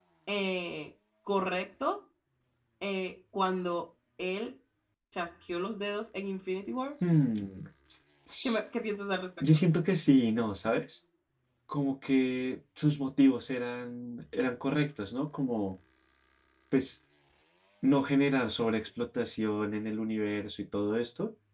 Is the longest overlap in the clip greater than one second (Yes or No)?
No